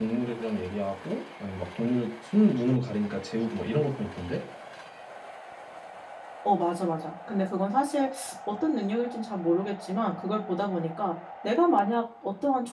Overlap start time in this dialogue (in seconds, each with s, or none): none